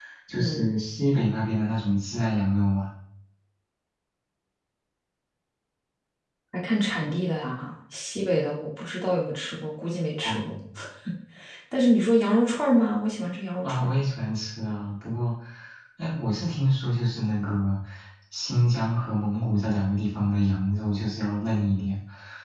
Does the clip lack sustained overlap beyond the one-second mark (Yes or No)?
Yes